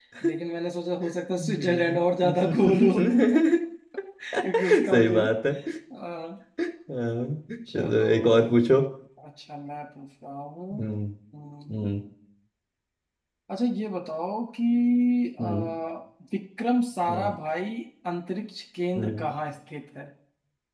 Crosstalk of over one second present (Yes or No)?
Yes